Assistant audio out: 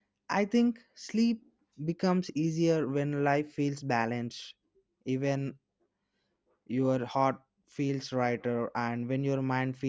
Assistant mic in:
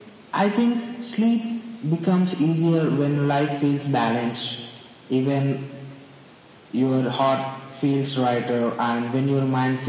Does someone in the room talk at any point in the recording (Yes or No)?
No